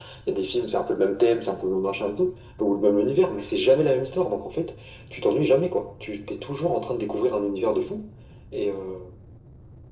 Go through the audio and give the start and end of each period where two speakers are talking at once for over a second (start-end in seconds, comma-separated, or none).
none